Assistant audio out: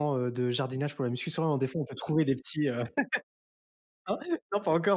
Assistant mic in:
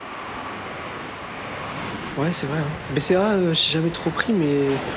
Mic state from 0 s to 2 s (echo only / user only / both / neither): neither